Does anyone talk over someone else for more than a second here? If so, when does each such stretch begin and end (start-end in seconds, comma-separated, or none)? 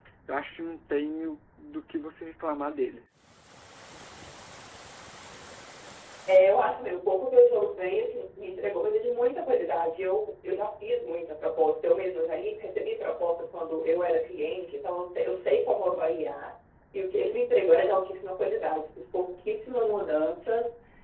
none